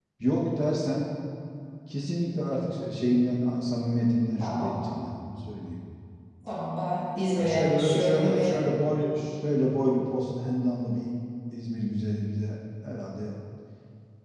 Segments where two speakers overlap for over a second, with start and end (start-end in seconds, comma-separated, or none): 7.4-8.6